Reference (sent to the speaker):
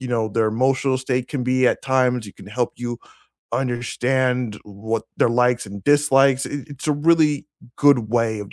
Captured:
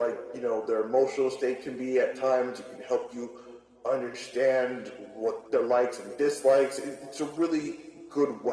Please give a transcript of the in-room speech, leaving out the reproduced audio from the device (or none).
none